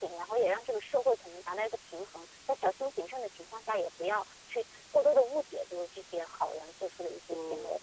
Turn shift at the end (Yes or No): Yes